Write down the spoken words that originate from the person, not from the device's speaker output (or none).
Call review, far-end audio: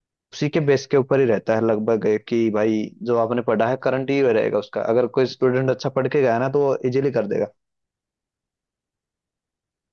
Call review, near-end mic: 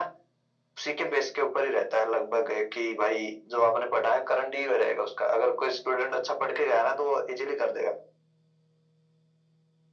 none